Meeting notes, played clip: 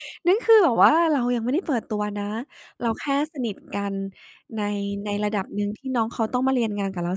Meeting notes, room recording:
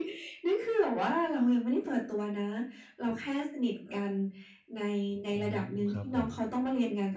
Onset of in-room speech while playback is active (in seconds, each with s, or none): 5.3 s